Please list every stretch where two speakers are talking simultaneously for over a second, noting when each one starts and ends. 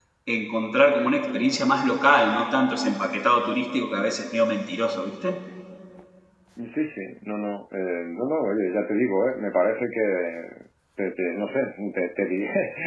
none

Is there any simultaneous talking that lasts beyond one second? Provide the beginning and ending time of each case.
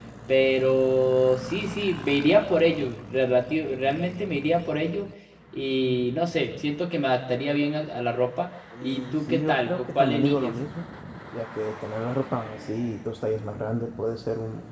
8.8-10.5

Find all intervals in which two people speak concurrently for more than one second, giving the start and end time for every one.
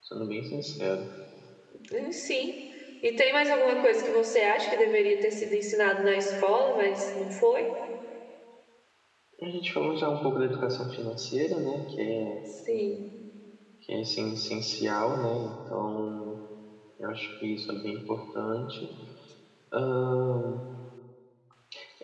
none

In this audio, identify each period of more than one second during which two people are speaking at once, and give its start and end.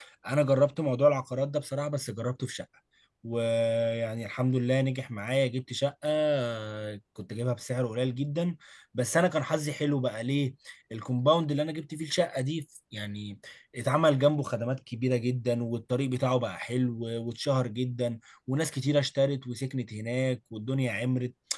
none

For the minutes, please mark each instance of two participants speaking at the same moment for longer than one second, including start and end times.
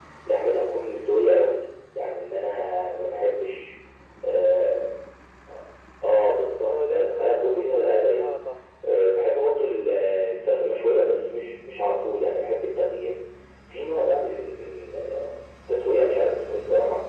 6.7-8.3

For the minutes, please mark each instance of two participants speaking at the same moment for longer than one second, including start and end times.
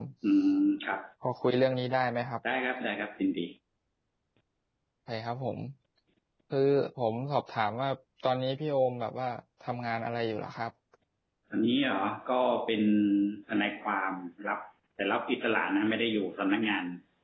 none

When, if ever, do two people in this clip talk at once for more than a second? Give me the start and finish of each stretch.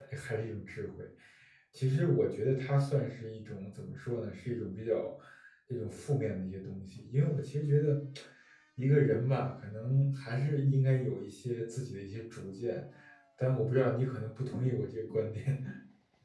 none

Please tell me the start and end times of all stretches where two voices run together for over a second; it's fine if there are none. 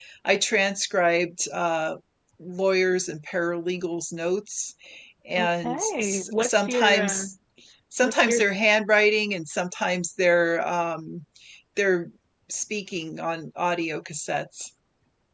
5.4-7.3

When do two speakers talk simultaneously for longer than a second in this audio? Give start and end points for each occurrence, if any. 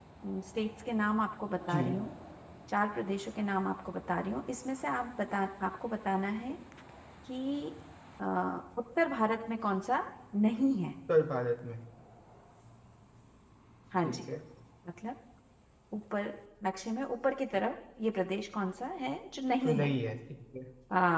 none

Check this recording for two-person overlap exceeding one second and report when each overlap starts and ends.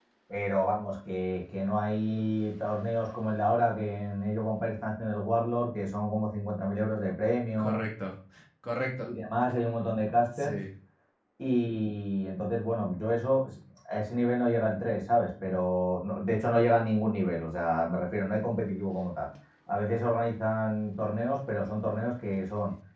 none

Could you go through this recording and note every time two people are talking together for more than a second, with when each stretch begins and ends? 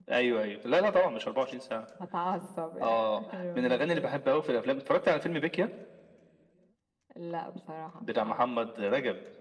2.9-4.1

